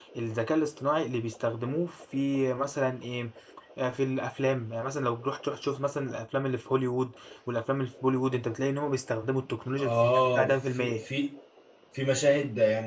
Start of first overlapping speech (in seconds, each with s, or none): 9.8 s